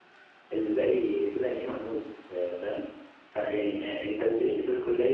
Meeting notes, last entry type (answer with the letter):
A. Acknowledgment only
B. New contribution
A